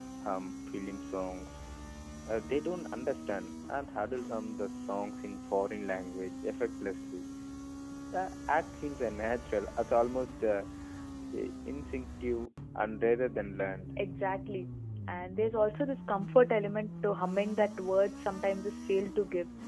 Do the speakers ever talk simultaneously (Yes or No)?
No